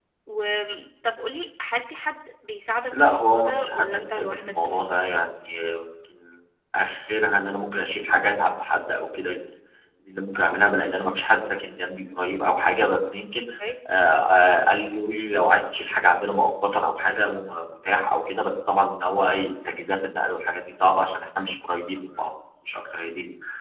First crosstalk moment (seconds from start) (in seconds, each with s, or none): 2.9 s